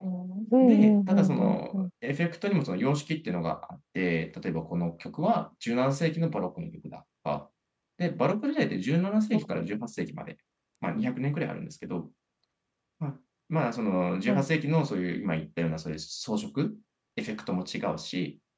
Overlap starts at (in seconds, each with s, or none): 0.6 s